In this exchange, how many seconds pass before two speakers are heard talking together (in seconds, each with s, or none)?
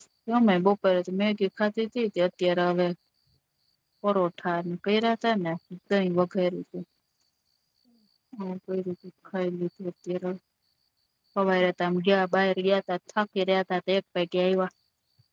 none